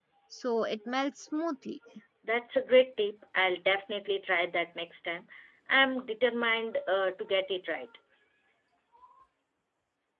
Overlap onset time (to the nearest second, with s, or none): none